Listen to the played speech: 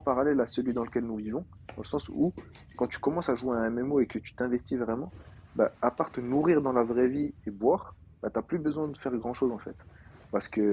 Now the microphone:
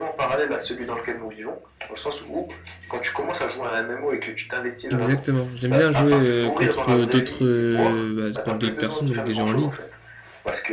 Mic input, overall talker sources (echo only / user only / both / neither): both